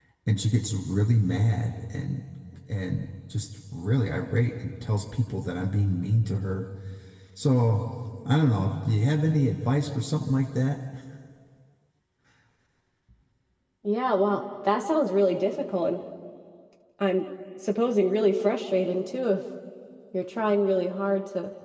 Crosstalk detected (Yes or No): No